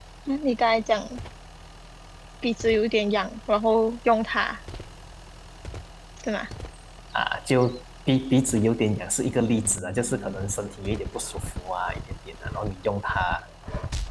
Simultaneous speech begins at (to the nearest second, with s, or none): none